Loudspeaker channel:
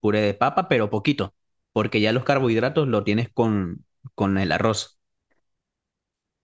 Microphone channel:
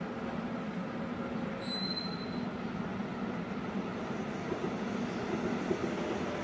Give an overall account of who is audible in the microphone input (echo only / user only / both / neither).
neither